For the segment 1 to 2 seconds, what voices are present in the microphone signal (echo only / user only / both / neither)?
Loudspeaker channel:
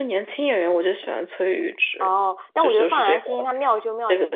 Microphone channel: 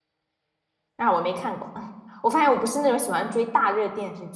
user only